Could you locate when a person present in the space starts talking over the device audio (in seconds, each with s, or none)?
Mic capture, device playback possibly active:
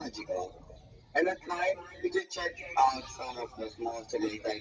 none